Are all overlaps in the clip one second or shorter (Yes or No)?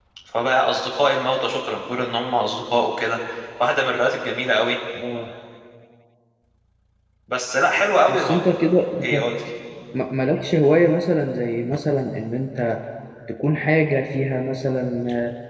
Yes